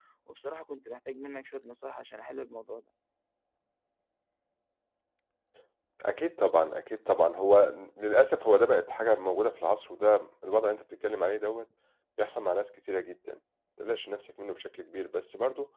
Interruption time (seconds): none

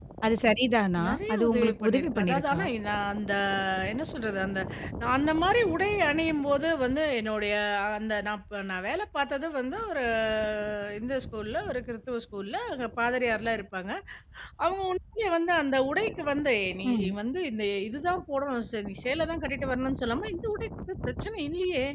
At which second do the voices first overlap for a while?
1.1 s

